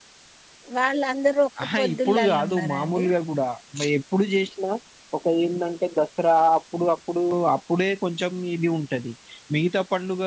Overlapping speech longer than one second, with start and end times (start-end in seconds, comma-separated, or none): 1.6-3.0